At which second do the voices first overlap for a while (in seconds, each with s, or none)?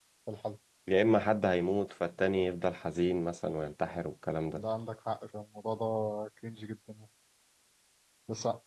none